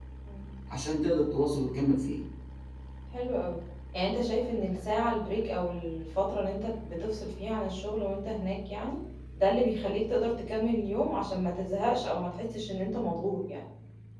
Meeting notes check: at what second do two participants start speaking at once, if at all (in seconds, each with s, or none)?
none